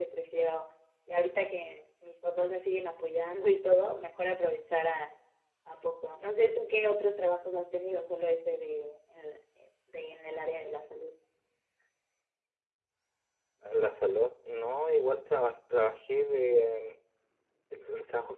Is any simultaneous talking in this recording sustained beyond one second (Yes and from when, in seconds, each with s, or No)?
No